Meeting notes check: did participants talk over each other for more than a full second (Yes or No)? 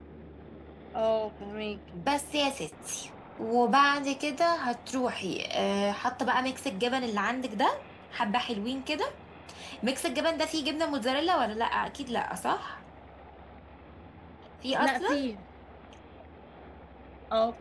No